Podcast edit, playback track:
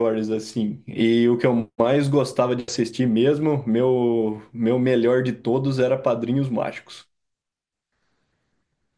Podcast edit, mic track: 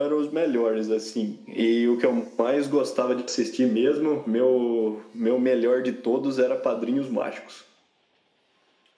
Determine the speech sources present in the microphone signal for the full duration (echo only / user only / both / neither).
echo only